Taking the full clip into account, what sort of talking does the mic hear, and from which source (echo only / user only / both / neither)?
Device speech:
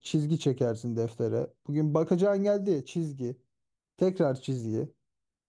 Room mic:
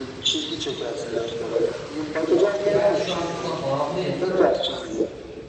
both